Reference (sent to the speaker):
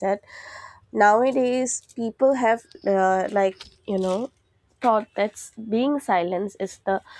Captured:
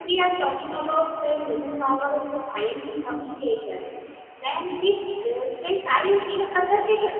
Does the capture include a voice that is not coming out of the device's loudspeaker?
Yes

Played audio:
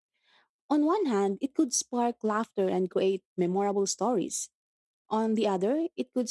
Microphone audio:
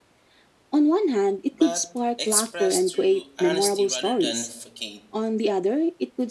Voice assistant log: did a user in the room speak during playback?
Yes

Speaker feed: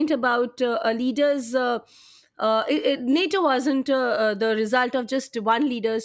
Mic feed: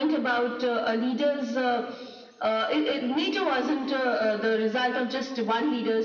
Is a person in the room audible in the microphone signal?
No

